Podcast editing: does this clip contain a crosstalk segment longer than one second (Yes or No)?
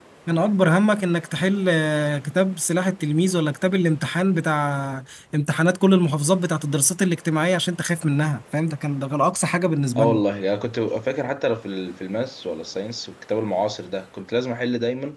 No